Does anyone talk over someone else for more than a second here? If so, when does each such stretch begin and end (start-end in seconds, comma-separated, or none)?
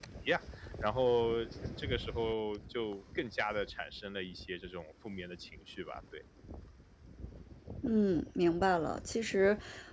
none